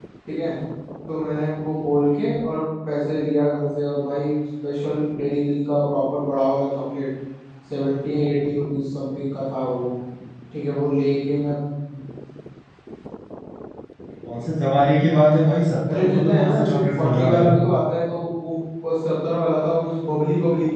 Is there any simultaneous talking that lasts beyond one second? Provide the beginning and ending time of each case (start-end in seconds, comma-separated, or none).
15.9-17.5